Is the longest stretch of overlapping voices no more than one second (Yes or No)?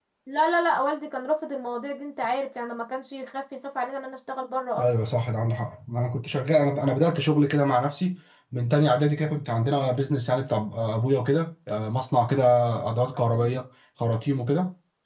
Yes